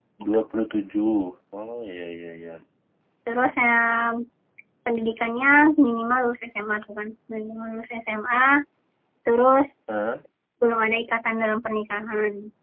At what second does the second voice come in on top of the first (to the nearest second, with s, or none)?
none